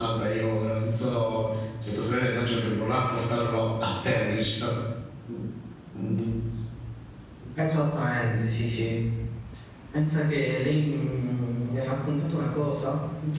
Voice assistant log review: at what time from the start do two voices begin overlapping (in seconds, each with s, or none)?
none